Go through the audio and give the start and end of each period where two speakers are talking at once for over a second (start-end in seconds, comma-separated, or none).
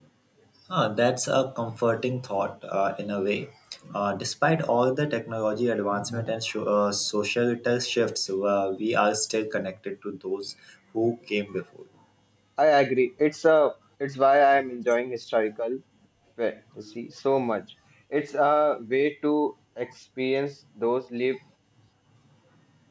none